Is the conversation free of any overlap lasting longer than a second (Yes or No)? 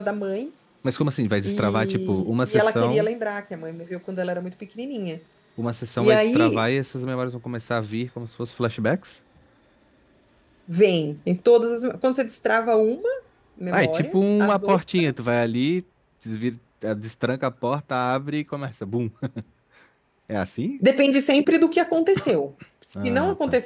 No